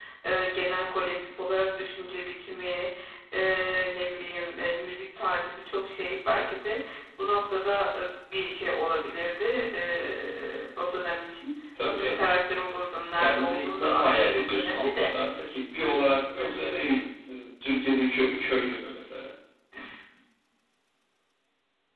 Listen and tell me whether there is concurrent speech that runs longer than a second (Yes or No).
Yes